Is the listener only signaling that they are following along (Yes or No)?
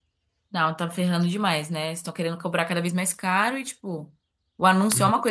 Yes